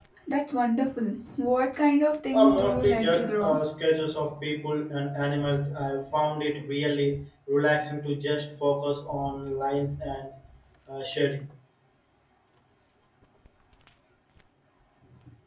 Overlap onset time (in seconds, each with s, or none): 2.3 s